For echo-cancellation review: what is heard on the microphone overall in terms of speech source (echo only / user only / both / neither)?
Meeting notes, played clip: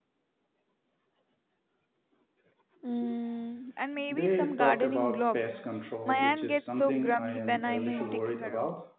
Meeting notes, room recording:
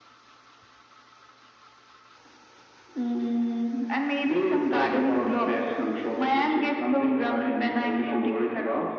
echo only